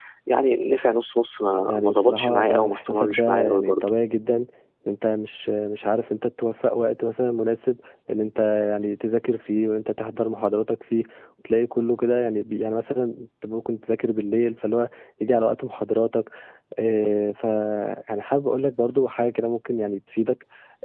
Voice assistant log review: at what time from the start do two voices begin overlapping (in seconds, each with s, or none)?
1.7 s